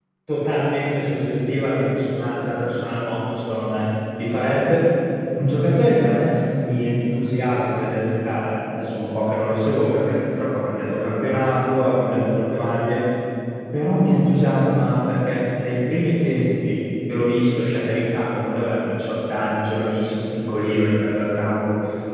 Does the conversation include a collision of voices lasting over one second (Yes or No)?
No